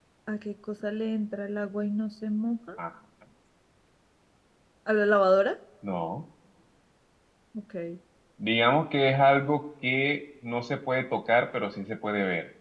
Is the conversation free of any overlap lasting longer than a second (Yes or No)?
Yes